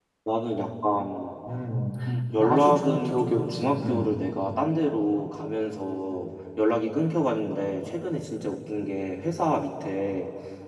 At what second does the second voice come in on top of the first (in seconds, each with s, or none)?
2.4 s